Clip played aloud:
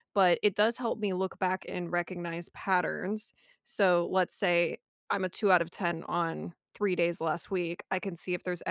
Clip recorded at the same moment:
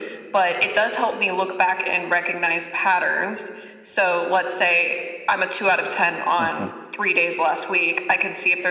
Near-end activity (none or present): present